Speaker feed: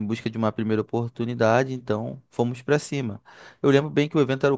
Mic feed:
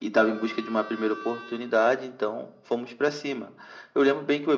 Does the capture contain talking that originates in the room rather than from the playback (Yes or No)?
No